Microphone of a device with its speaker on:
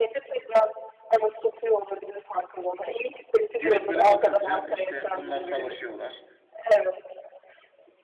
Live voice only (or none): direkt böyle bakınca işte bunlar savaşıyorlar.